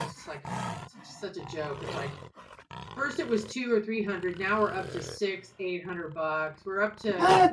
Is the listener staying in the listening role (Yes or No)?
Yes